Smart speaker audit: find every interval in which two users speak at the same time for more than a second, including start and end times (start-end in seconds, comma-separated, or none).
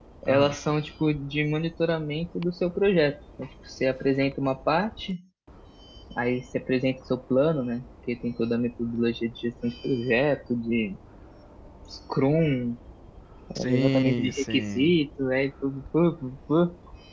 13.6-15.0